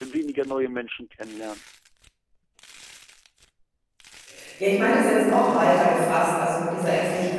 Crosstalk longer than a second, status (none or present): none